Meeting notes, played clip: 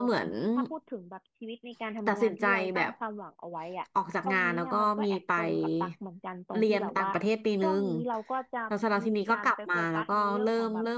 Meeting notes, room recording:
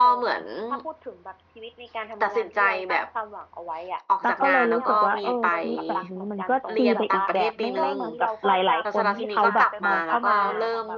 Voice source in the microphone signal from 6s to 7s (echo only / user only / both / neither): both